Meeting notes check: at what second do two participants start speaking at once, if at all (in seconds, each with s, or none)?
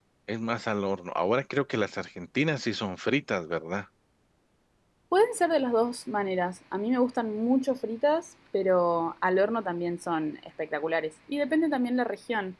none